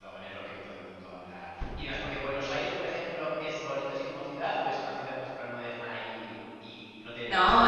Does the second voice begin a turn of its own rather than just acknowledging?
Yes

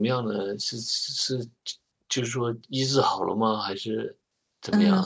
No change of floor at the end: No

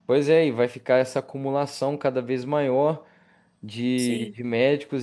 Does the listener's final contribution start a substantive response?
No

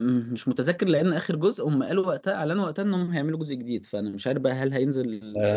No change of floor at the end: No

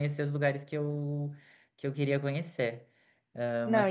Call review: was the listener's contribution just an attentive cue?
No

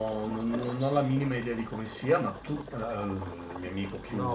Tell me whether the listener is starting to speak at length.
Yes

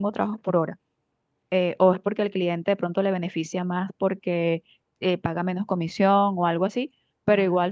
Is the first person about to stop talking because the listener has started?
No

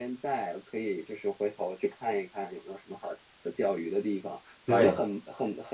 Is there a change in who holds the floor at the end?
No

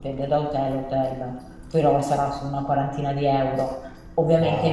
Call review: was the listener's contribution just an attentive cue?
Yes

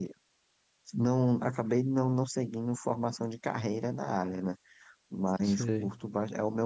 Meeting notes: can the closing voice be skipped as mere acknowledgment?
Yes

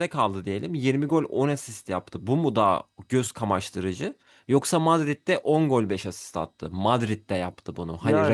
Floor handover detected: Yes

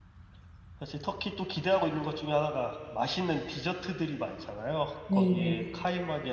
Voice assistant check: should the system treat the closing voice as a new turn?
No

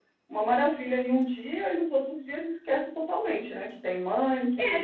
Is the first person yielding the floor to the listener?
Yes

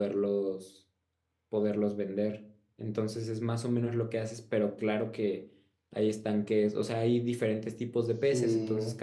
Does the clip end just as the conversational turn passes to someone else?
No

